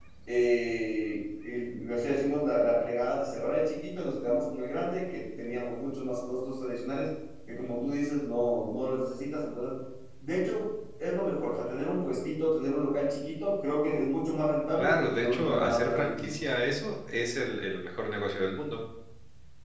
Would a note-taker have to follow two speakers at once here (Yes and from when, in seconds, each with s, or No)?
Yes, from 14.8 s